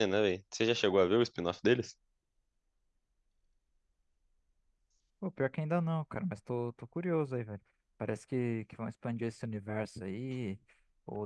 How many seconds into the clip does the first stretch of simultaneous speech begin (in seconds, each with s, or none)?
none